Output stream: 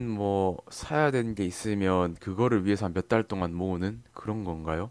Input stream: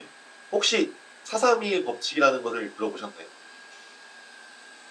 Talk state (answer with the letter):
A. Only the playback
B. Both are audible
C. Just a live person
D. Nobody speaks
C